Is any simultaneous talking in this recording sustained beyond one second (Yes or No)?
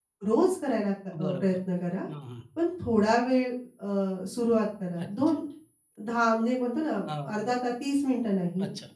No